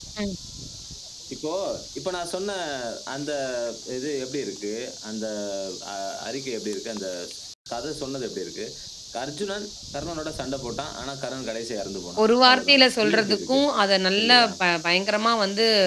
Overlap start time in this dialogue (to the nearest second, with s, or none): 12 s